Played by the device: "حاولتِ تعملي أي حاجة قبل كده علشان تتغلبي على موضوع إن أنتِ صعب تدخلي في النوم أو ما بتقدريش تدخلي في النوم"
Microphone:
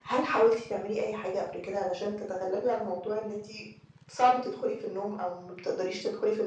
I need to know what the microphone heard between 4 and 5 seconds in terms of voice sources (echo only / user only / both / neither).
echo only